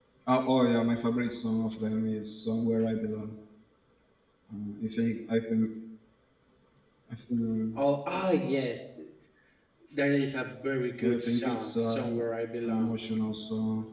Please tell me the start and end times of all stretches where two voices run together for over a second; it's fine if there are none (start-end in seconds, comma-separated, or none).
11.0-12.2